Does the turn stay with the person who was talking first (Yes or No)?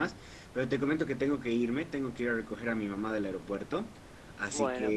Yes